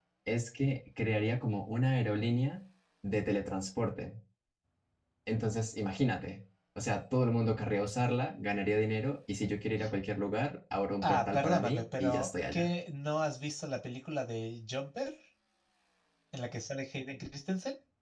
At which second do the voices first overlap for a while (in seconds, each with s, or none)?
11.0 s